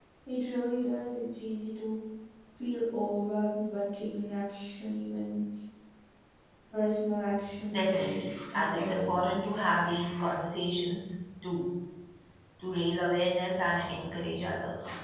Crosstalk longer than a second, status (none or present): present